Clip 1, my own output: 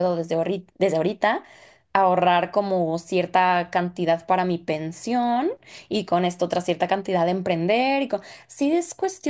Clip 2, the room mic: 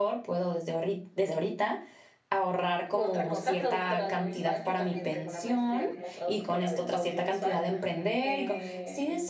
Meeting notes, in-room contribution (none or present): present